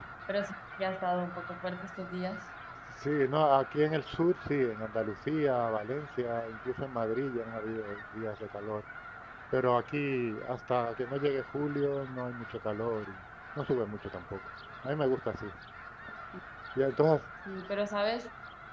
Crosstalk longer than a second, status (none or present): none